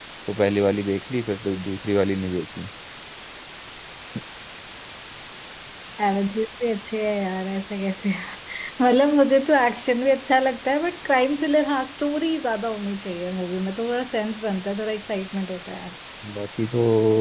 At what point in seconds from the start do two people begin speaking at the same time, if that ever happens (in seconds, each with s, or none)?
none